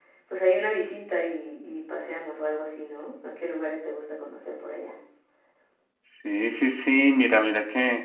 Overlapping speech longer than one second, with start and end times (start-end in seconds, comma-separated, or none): none